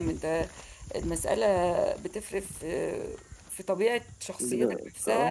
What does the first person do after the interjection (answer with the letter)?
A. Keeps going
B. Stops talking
A